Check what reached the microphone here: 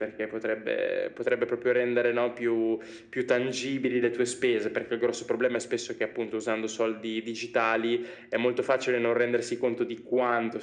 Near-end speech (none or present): none